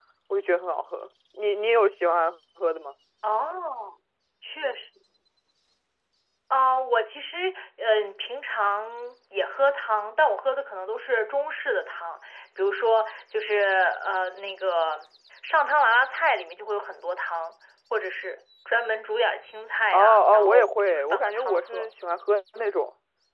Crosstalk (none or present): present